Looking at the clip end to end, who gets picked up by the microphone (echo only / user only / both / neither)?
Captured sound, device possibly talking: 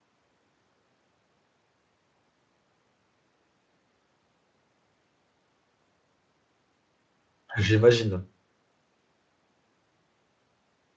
user only